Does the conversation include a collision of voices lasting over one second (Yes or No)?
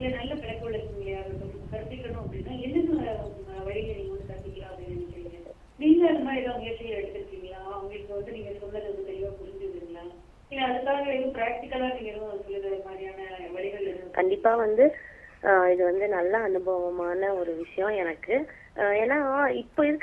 No